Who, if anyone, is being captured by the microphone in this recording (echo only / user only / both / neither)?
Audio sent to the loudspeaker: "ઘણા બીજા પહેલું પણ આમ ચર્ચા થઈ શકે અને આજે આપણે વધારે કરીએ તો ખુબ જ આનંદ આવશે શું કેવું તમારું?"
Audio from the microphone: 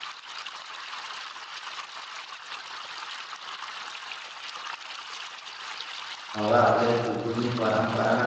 user only